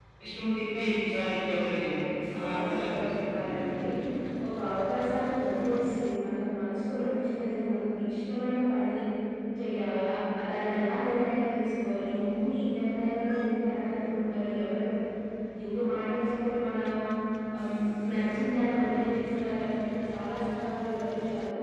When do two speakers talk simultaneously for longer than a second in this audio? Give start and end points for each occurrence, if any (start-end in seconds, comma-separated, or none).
2.4-3.8